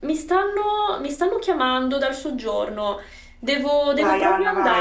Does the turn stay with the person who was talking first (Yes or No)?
No